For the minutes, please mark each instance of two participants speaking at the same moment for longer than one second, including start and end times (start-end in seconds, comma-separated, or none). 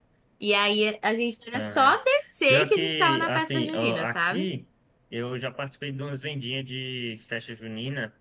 2.5-4.5